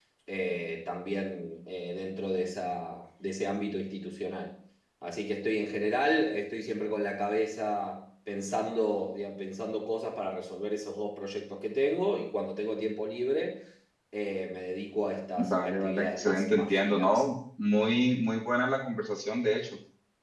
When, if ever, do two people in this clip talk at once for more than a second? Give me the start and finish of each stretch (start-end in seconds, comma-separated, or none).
15.4-17.2